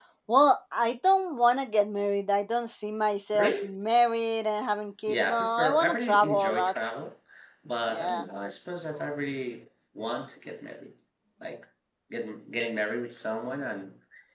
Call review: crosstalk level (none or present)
present